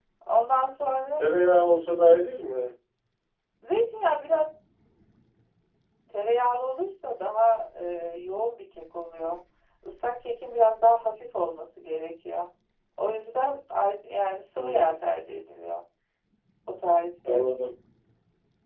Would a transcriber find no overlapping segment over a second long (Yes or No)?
Yes